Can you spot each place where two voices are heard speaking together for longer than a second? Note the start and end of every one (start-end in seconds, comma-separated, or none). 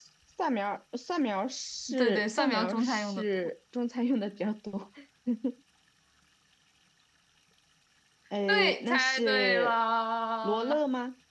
1.9-3.5, 8.5-9.8